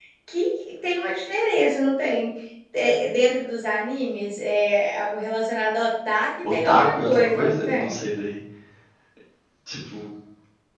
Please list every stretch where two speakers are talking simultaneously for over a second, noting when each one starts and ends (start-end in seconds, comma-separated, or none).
6.5-8.0